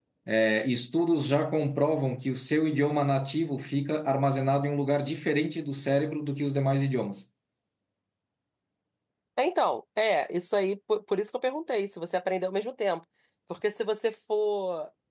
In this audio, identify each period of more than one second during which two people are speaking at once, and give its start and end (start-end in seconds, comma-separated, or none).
none